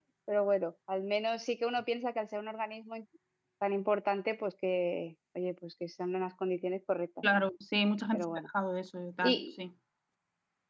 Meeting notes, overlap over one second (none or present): none